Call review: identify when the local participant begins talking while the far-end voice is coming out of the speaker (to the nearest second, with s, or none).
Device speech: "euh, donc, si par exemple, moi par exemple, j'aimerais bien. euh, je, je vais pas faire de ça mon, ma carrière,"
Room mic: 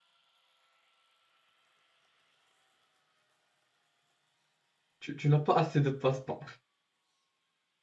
5 s